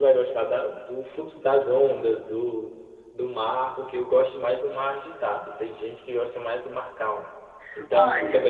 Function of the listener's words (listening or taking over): listening